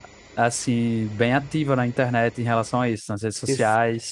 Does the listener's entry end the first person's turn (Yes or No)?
Yes